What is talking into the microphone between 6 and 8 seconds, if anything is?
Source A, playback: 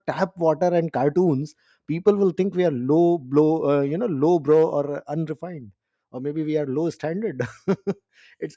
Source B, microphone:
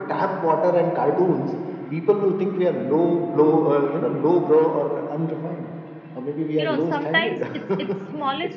both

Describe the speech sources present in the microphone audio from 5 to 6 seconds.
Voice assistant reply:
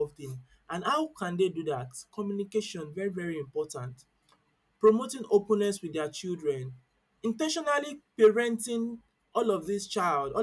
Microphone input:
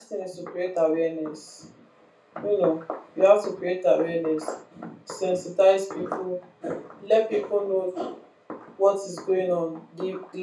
user only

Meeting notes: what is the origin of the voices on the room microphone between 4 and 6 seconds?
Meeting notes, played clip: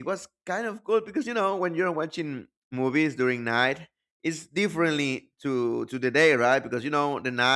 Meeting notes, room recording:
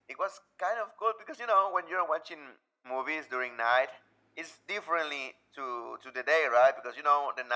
echo only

